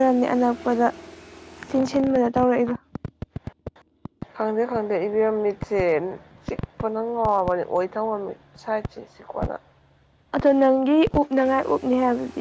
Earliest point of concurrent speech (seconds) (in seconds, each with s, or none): none